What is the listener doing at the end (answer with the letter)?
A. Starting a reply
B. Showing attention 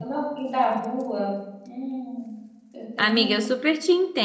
A